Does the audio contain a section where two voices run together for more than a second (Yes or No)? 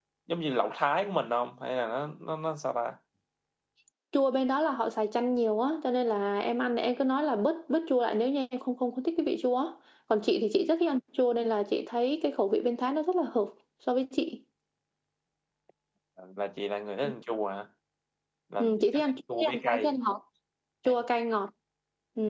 Yes